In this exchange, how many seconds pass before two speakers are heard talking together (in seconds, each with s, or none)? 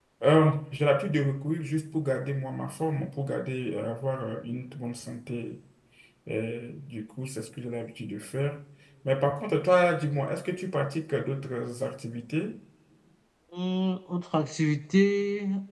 none